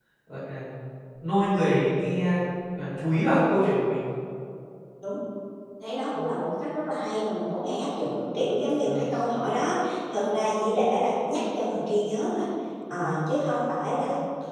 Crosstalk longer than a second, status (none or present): none